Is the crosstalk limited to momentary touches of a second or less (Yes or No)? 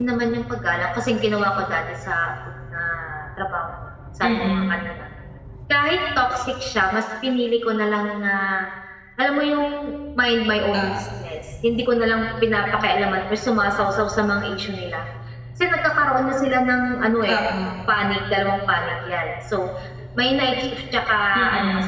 Yes